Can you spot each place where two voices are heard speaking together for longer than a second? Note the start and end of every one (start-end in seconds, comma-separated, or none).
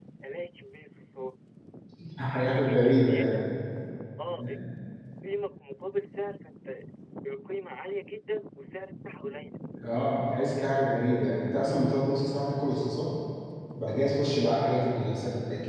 2.3-3.5